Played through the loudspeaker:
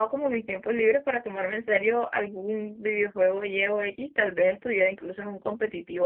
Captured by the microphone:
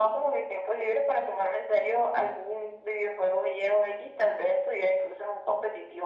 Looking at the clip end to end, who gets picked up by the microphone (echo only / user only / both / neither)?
echo only